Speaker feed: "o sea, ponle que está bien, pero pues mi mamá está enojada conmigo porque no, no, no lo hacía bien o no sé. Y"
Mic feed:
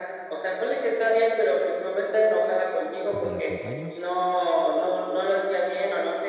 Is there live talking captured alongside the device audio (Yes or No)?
Yes